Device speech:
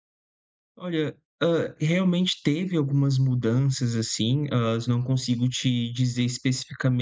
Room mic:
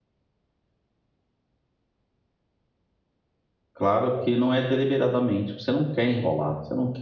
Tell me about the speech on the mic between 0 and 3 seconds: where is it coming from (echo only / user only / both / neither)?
neither